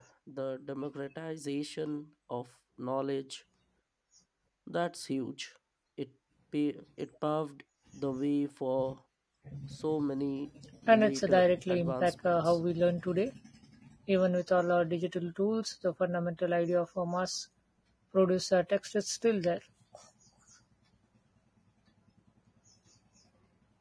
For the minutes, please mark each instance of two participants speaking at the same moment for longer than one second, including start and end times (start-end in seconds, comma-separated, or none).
10.9-12.6